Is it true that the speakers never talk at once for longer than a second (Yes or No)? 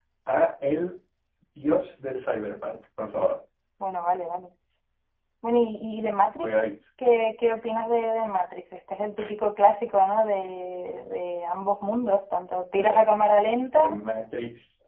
Yes